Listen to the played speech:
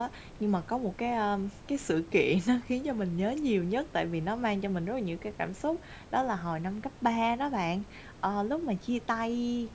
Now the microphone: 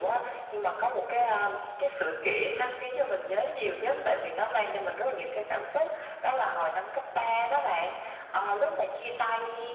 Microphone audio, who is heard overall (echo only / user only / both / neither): both